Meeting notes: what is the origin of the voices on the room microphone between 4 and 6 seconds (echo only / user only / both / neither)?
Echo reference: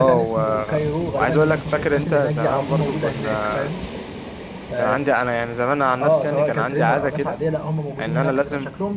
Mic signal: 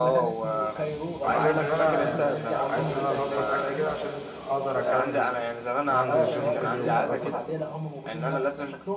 both